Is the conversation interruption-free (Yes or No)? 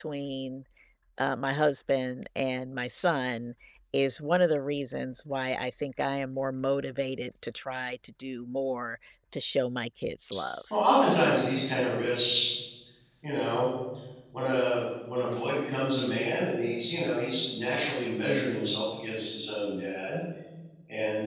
Yes